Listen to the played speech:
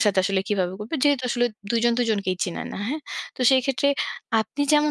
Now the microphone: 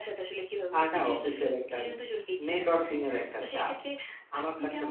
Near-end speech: present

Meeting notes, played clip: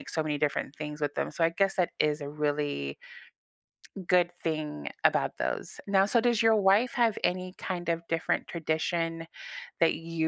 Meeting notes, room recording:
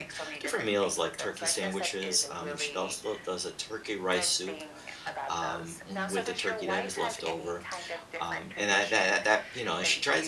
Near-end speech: present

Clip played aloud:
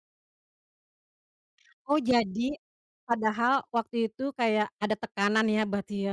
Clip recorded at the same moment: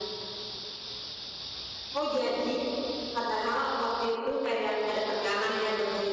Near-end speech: none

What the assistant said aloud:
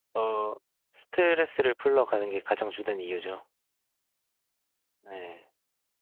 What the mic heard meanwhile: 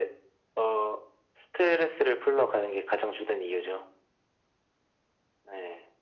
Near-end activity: none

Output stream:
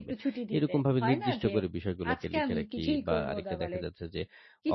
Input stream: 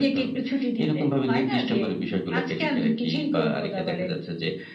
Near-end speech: none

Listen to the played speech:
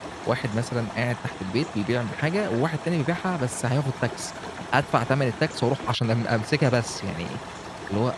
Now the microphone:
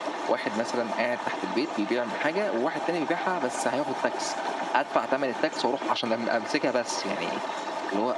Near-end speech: none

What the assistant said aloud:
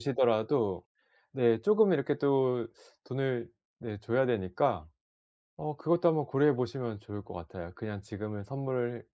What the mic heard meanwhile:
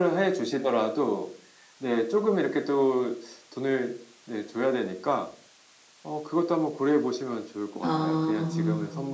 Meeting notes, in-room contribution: present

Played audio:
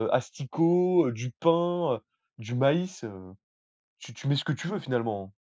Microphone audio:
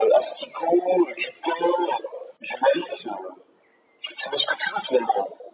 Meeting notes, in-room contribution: none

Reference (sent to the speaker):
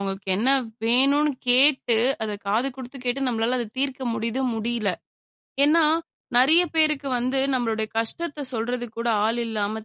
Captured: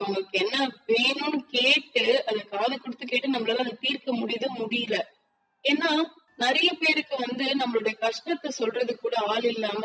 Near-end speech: none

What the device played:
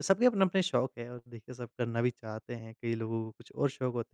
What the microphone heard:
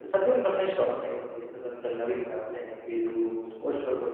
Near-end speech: none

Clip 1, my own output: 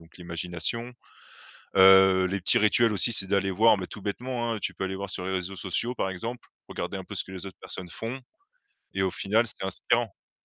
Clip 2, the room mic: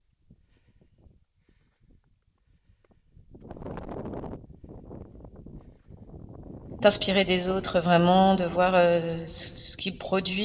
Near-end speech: present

